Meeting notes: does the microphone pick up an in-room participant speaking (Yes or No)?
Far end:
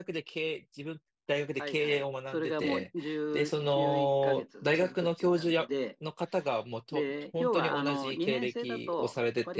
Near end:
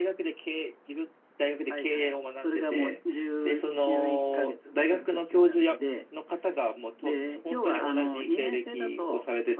No